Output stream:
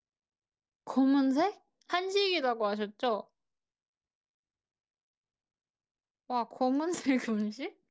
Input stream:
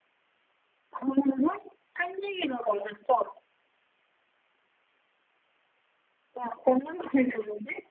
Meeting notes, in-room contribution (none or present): none